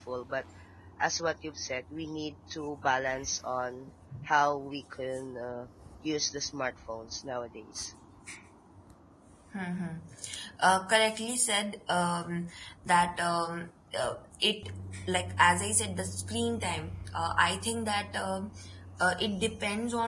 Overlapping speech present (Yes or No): No